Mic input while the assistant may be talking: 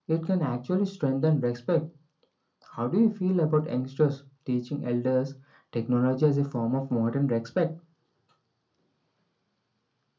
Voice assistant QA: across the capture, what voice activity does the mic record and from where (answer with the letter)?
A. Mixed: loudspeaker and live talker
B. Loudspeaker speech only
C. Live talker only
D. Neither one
B